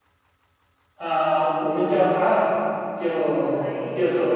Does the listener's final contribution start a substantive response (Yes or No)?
No